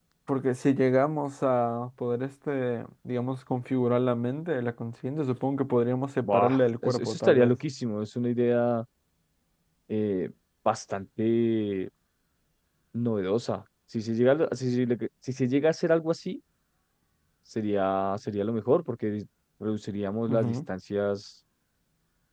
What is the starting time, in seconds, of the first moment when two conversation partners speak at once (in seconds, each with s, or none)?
6.2 s